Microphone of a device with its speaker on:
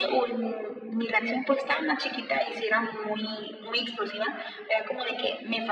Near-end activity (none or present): none